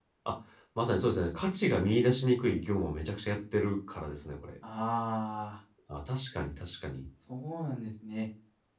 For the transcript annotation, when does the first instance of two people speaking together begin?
none

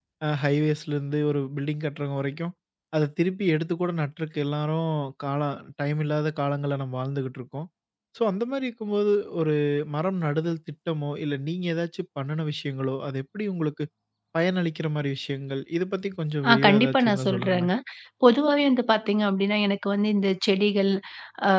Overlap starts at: 16.4 s

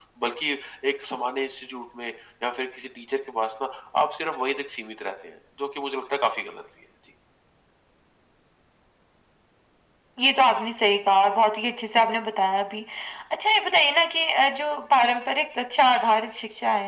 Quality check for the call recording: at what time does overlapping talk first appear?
none

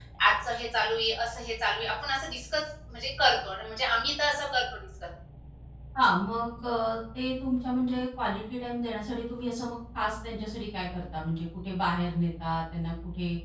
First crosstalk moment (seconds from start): none

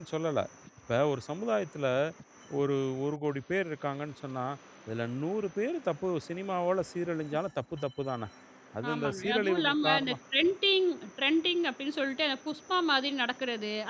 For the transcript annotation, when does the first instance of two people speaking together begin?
8.9 s

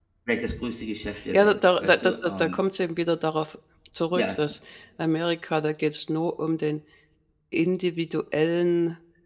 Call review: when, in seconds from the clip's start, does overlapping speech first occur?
1.3 s

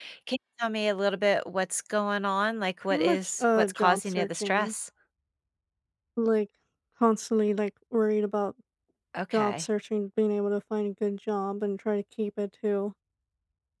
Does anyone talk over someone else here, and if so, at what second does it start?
2.9 s

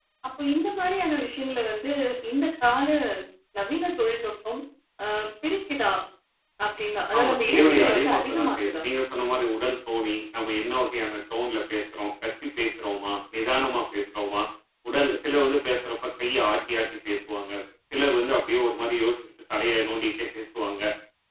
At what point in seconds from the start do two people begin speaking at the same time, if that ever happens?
7.2 s

